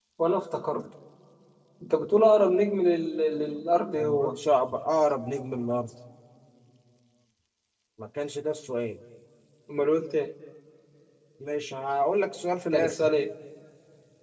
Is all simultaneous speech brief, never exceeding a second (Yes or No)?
Yes